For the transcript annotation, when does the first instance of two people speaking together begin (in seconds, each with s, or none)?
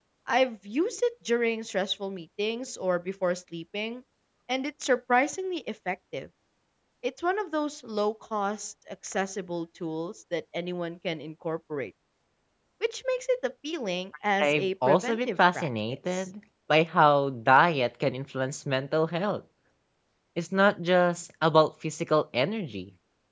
14.4 s